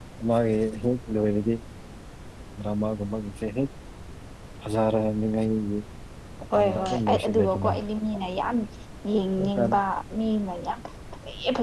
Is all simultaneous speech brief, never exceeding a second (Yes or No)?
No